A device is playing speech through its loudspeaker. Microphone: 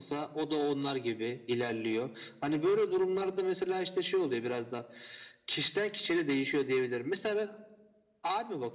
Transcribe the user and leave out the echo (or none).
none